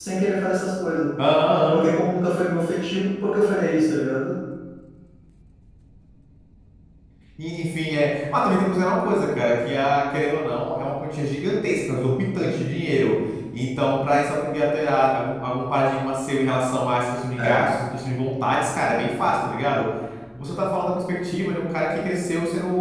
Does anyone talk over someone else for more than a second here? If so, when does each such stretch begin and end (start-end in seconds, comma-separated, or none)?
none